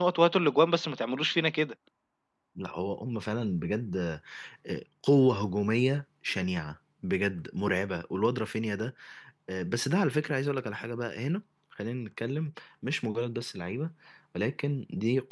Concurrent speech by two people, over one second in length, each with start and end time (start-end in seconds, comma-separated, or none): none